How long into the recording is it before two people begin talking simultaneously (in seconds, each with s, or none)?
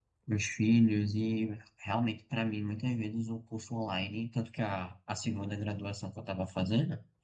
none